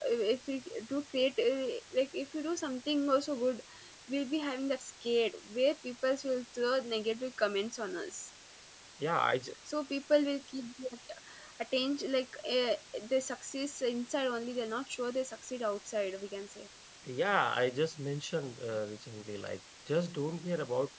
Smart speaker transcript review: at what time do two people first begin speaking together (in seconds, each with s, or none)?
none